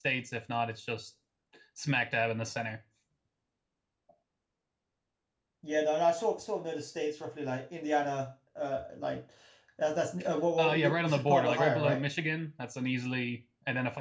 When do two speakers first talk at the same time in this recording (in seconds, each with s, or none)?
10.6 s